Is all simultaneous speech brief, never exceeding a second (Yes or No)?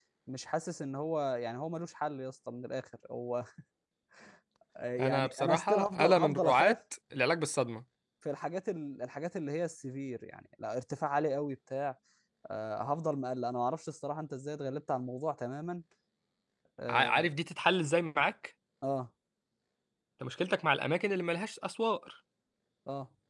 No